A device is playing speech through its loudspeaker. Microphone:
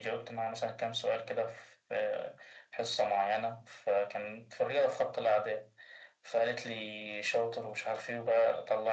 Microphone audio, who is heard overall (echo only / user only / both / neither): echo only